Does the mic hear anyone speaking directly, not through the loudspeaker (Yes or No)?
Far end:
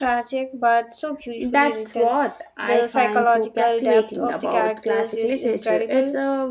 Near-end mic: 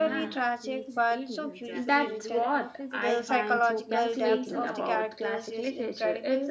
Yes